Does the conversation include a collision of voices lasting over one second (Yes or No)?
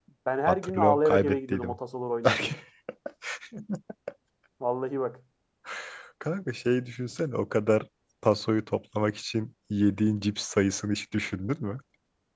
Yes